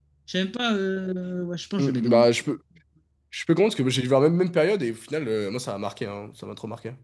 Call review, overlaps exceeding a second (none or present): none